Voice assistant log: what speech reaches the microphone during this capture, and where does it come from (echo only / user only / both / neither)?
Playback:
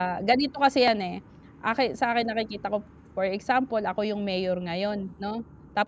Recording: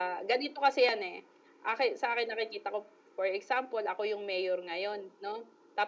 echo only